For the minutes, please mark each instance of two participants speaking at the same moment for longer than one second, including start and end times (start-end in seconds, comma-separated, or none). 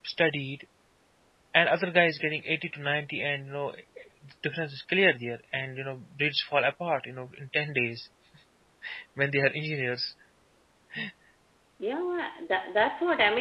none